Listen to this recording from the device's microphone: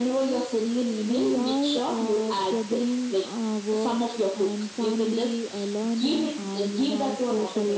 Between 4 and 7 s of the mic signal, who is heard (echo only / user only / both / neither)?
echo only